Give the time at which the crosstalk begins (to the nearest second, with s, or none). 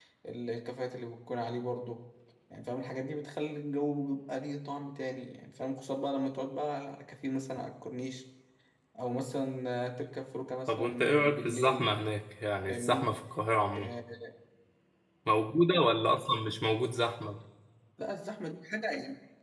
11 s